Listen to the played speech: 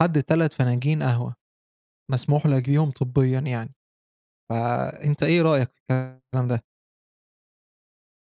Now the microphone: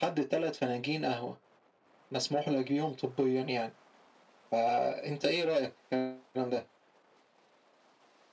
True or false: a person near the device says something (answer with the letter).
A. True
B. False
B